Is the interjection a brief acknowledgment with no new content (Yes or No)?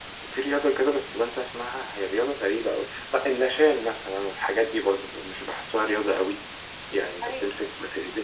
Yes